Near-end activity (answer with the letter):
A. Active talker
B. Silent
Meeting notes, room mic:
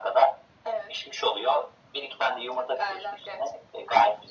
B